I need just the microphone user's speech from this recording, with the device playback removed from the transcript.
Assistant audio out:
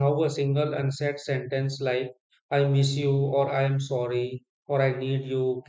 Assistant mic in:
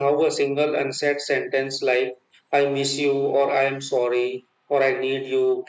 none

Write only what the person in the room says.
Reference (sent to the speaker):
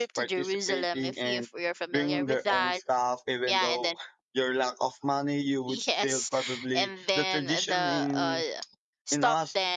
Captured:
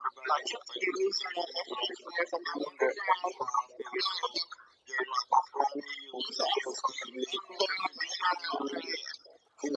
none

